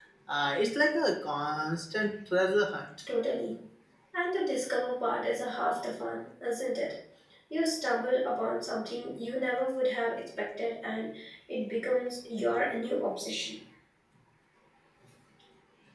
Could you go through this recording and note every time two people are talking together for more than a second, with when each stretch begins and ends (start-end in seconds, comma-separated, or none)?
none